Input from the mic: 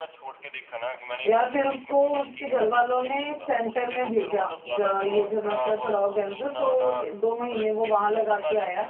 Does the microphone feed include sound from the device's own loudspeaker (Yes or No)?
Yes